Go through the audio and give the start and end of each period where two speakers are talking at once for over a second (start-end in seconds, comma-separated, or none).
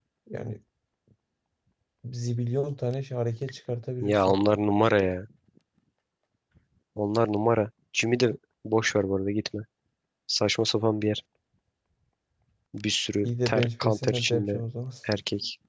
13.2-14.6